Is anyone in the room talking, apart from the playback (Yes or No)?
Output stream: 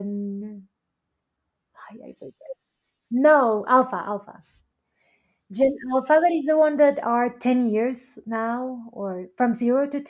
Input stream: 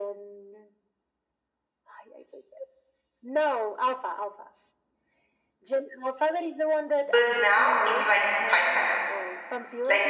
Yes